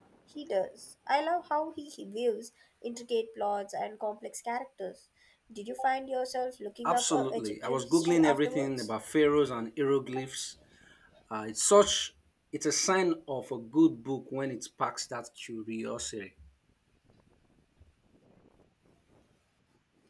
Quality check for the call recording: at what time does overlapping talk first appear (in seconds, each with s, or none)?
6.8 s